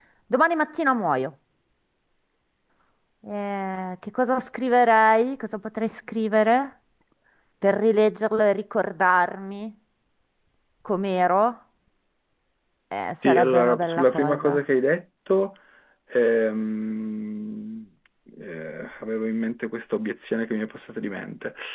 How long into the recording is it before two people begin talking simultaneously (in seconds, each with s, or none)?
13.2 s